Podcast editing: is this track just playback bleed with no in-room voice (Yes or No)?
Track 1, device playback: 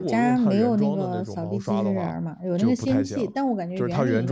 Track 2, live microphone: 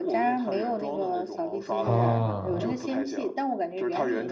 No